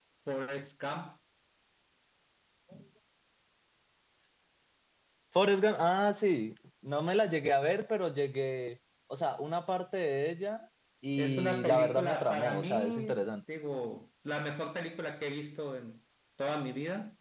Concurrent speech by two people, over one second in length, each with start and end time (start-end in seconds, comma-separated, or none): 11.2-13.2